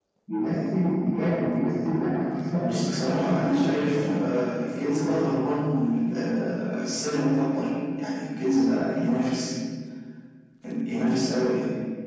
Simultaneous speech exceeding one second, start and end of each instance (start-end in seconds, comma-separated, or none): 2.7-4.2